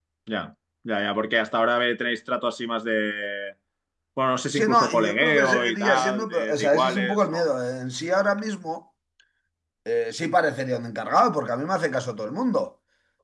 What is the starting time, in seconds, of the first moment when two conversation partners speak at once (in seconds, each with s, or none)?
4.5 s